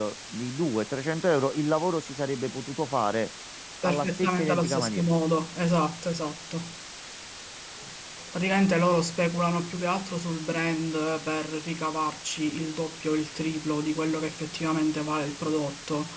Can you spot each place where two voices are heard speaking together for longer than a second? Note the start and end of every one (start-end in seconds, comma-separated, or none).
3.8-5.1